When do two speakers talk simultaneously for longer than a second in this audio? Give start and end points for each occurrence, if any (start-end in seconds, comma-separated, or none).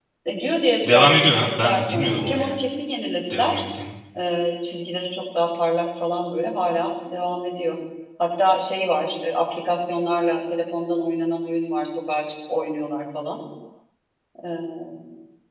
0.9-2.5